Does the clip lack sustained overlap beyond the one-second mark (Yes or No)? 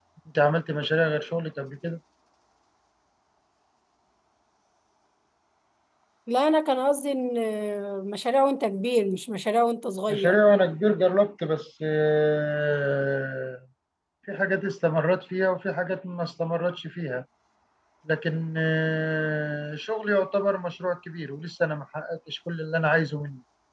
Yes